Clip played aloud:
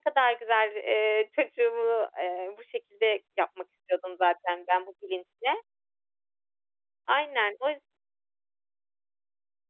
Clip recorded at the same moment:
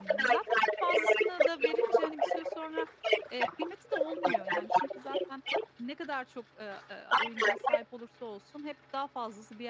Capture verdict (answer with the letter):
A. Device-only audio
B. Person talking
B